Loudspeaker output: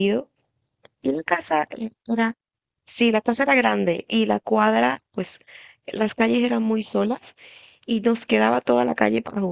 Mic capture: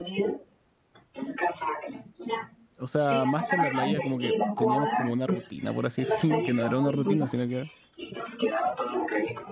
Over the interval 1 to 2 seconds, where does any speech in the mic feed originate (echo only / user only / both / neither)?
echo only